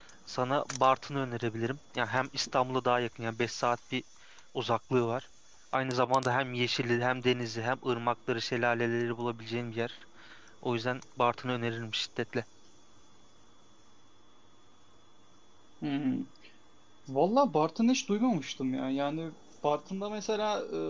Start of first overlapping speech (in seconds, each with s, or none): none